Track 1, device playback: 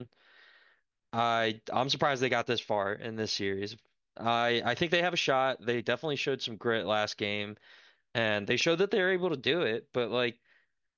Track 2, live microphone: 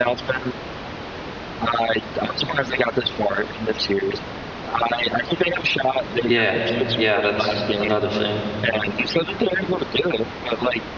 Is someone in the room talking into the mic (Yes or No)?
Yes